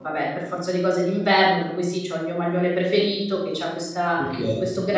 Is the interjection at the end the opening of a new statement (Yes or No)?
No